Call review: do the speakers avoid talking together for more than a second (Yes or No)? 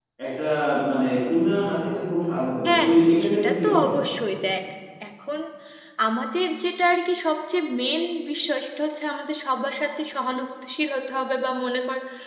No